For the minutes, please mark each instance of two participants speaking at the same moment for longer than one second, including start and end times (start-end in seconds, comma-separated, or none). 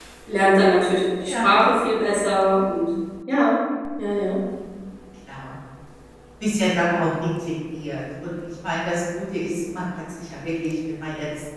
none